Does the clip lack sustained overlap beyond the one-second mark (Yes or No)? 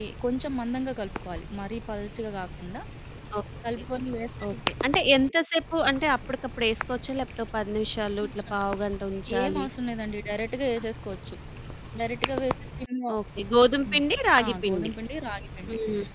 Yes